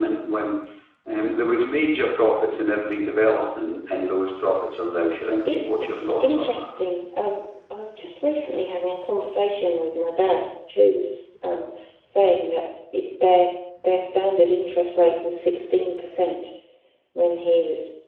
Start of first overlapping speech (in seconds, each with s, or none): 5.5 s